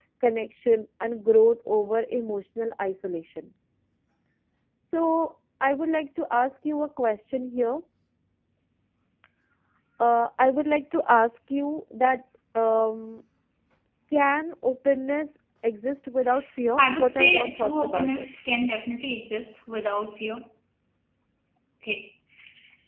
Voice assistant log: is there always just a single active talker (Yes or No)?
No